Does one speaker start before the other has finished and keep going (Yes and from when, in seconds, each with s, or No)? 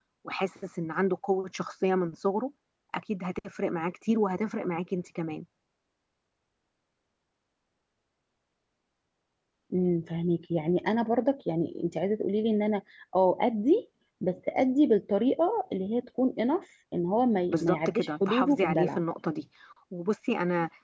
Yes, from 17.5 s